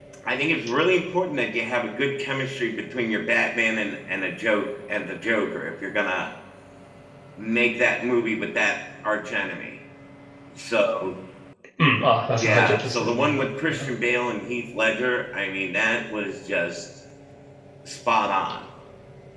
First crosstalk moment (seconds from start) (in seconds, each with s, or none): 12.4 s